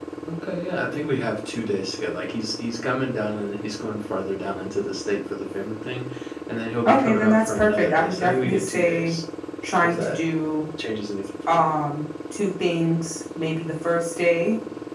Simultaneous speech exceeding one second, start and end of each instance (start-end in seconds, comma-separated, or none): 6.9-9.2